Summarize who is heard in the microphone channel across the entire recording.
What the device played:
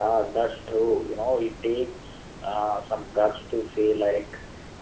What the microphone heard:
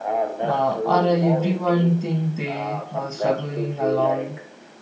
both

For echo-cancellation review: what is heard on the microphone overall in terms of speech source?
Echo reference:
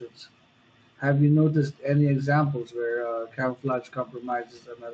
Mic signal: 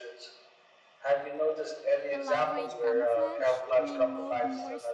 both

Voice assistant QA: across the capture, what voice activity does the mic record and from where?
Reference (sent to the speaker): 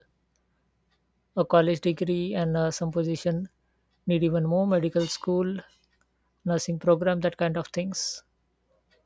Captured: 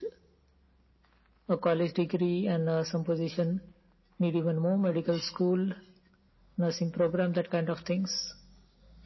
echo only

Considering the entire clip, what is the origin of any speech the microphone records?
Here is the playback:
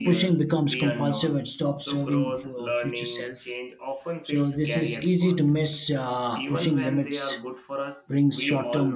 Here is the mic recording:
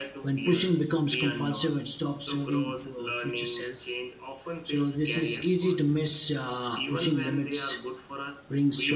echo only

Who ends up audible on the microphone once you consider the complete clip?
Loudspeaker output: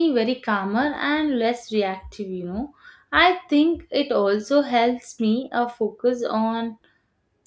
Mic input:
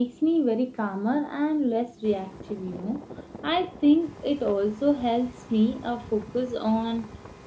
echo only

